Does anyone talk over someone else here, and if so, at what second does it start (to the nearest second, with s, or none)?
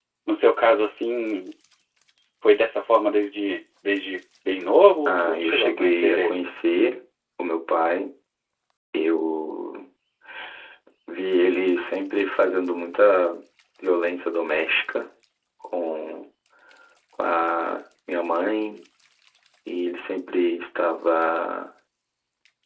5 s